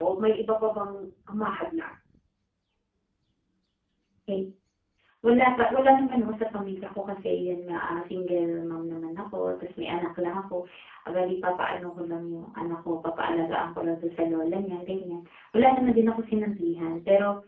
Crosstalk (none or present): none